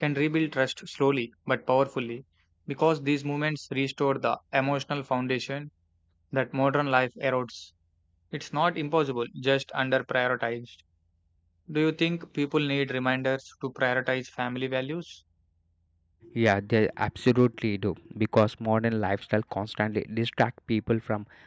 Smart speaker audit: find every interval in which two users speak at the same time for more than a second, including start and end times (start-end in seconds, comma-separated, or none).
none